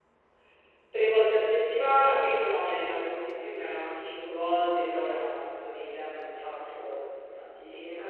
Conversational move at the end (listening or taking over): listening